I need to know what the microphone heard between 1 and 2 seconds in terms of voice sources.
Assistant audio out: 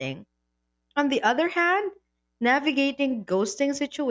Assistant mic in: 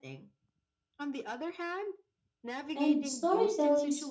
echo only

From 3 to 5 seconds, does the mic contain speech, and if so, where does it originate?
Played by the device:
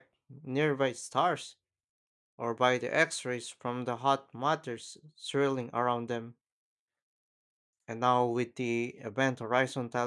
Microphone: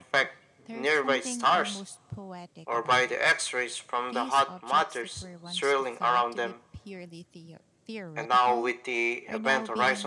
both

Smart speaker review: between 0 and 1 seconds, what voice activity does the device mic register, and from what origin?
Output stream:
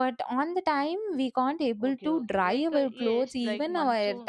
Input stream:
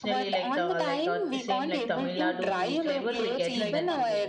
both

